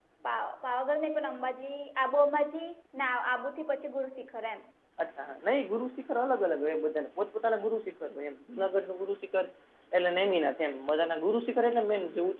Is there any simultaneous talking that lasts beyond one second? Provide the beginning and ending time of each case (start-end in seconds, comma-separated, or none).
none